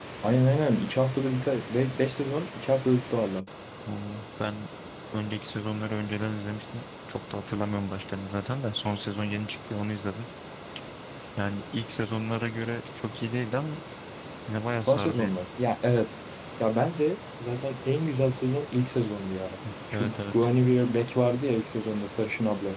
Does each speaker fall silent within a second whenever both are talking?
Yes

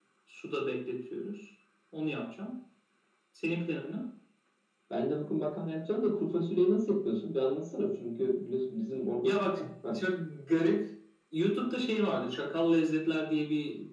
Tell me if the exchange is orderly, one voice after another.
Yes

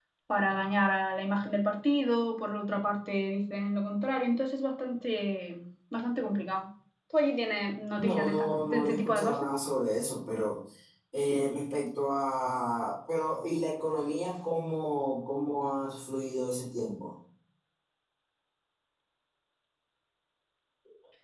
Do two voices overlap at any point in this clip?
Yes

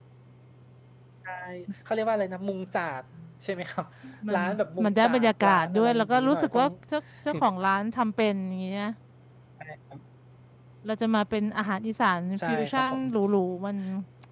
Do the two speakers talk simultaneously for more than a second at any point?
Yes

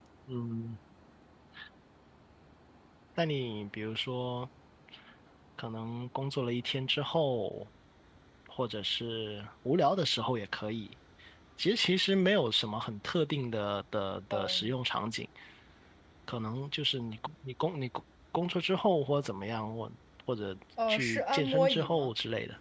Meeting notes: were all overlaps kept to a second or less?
No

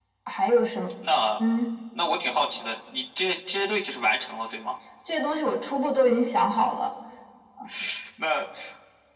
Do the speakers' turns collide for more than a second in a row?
No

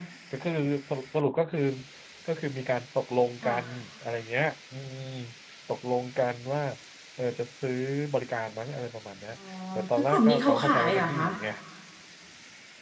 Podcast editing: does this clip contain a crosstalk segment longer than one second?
Yes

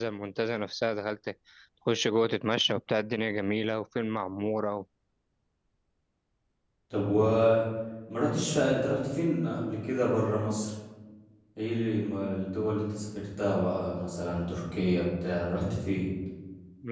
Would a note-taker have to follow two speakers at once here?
No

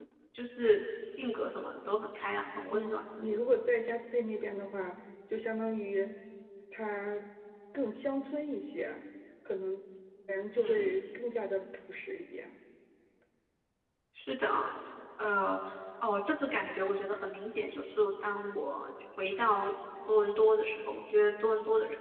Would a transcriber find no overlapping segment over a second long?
Yes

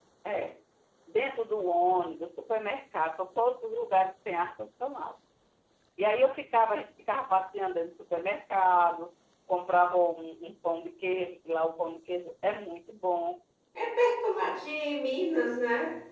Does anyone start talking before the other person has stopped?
No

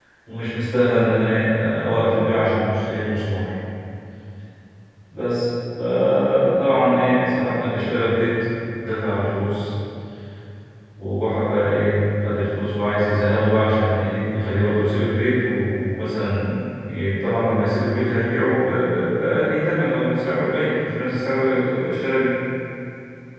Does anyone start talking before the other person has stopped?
No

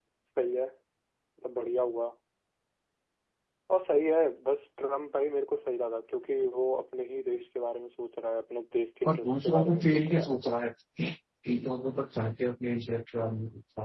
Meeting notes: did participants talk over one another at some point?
Yes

